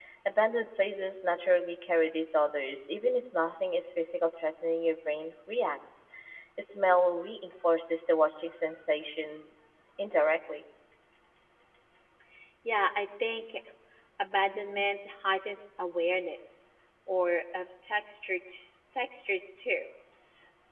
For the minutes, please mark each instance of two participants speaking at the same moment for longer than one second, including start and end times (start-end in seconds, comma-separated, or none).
none